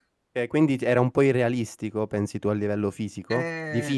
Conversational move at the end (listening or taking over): taking over